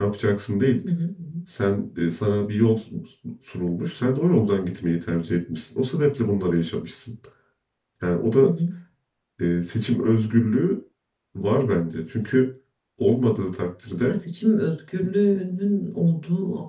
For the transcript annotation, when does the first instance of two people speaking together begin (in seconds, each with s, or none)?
none